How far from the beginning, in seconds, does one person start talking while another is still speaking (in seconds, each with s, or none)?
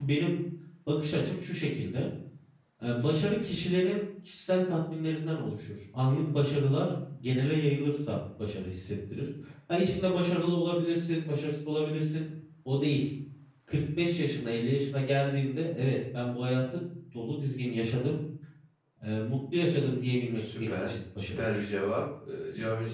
20.4 s